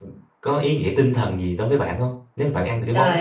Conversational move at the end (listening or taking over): taking over